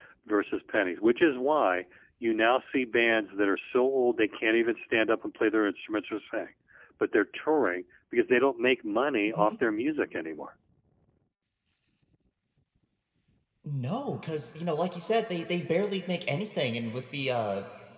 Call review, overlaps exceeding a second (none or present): none